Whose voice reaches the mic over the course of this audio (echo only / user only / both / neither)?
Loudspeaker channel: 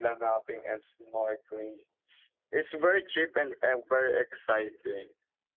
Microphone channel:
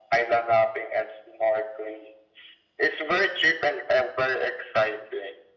echo only